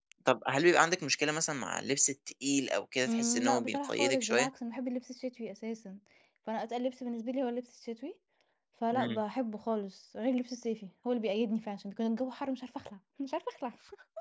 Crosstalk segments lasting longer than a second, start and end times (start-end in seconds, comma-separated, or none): 3.0-4.5